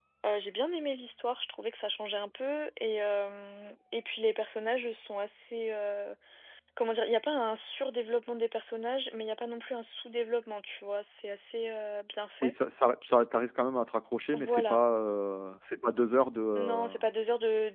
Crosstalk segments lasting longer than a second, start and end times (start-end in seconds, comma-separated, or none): none